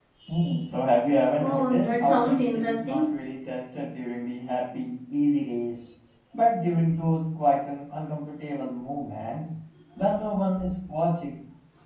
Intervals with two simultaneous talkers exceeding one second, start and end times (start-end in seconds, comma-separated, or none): 1.4-3.0